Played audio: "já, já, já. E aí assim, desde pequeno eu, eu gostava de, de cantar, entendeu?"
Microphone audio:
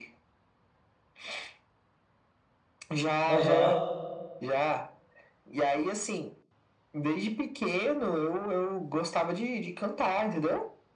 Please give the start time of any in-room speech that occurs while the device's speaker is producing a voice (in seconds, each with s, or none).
3.2 s